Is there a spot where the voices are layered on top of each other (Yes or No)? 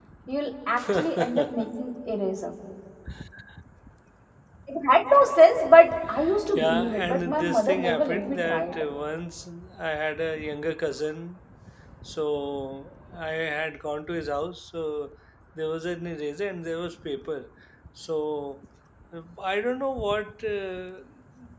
Yes